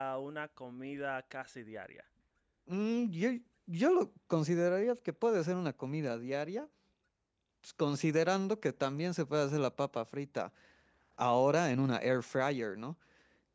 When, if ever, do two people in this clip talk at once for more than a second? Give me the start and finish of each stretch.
none

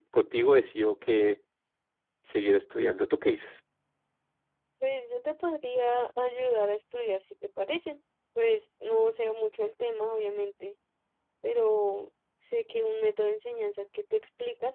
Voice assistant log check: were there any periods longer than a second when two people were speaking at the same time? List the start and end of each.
none

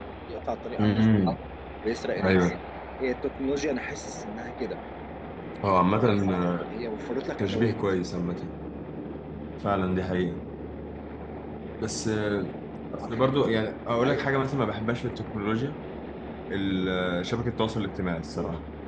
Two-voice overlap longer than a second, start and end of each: none

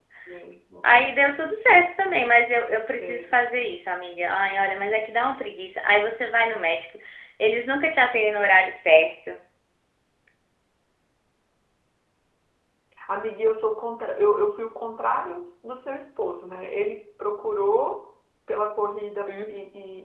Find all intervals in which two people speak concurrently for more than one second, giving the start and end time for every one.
none

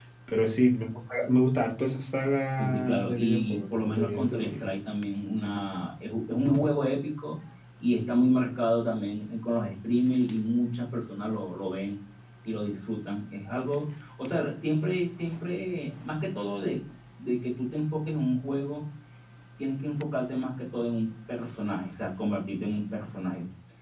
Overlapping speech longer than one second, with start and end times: 2.6-4.6

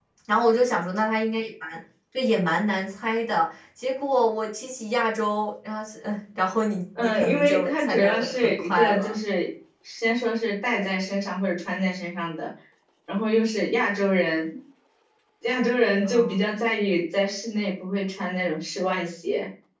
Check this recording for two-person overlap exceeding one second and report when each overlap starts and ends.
7.0-9.1

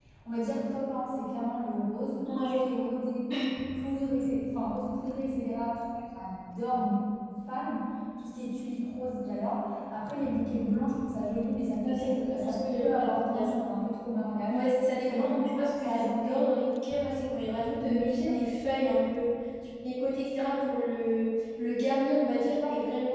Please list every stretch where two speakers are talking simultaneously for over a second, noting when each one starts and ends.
11.8-13.5, 15.0-16.3

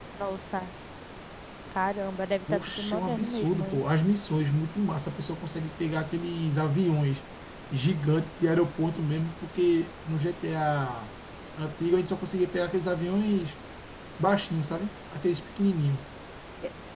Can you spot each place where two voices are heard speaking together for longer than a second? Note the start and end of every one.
2.5-3.8

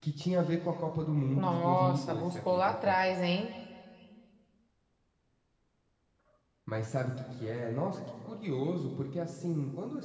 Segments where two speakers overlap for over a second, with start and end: 1.4-3.0

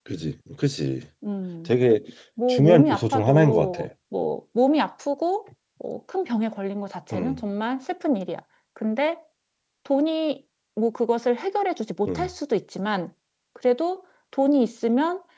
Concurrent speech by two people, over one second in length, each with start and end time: 2.5-3.9

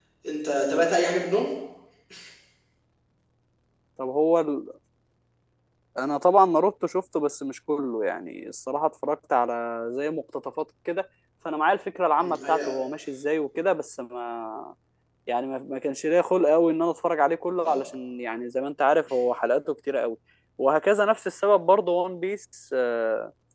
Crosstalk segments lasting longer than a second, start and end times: none

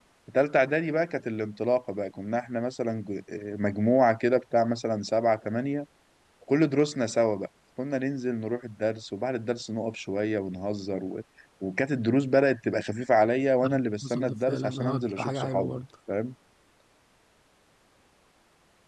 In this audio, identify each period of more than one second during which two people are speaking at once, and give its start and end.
13.7-15.8

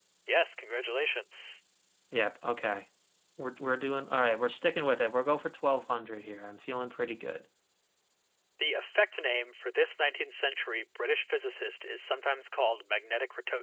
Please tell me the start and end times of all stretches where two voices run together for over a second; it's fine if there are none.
none

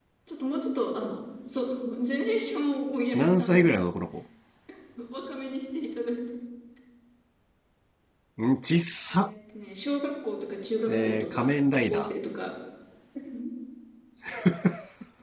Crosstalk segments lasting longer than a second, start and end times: 10.9-12.1

